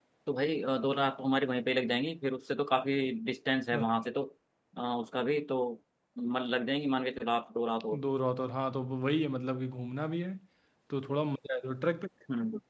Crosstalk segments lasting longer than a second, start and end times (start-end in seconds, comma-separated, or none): none